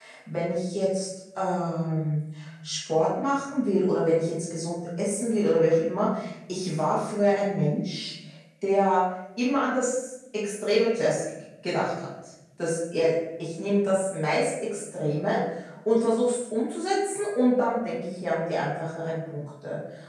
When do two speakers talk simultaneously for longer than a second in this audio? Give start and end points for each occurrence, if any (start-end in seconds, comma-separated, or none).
none